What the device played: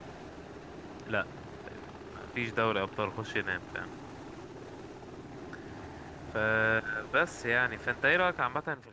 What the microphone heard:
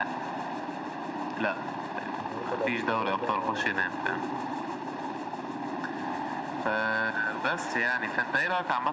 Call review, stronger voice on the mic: echo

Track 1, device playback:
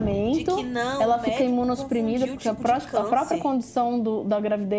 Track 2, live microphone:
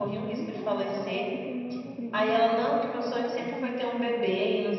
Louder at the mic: user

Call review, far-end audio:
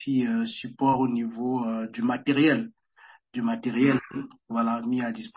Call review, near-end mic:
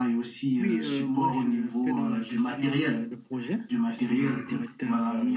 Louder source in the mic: echo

